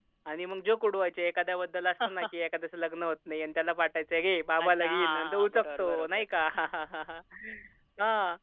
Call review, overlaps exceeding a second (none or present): present